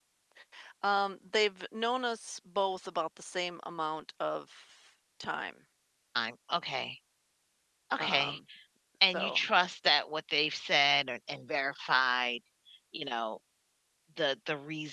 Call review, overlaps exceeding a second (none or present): none